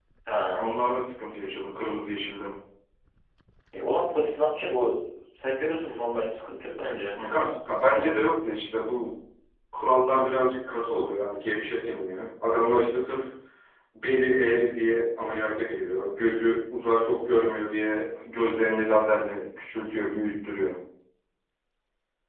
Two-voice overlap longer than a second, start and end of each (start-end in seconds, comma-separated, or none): none